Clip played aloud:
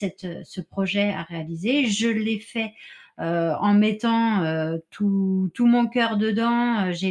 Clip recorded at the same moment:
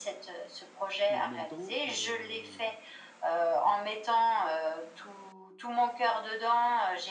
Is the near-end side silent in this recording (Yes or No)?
No